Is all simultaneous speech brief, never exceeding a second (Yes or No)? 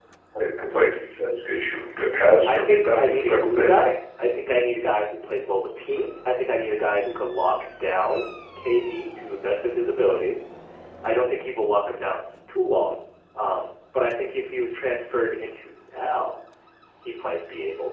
No